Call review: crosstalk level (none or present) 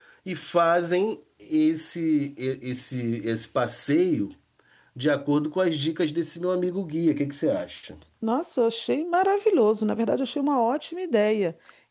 none